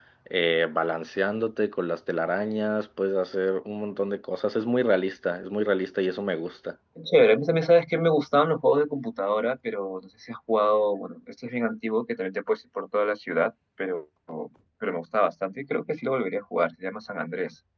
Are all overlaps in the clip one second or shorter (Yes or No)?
Yes